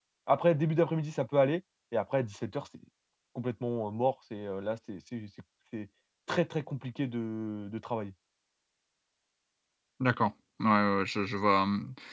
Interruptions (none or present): none